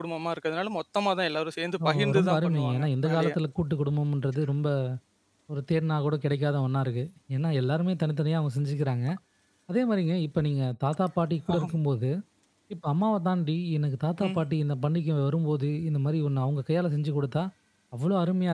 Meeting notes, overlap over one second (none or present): present